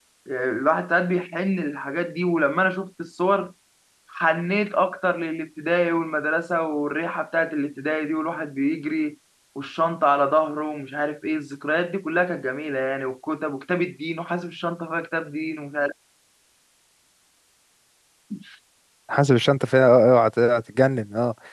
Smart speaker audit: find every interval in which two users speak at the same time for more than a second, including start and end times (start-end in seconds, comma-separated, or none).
none